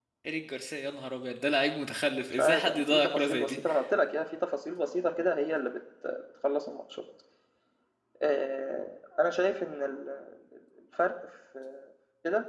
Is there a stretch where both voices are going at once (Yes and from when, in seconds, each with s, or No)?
Yes, from 2.1 s